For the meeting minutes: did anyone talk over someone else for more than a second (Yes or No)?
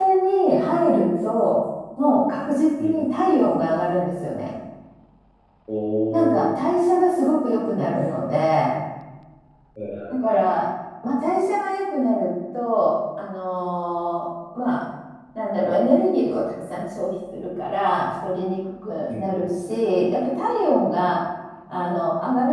No